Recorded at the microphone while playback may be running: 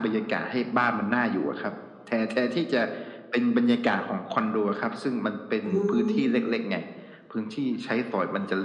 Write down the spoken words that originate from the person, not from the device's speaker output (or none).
อ๋อ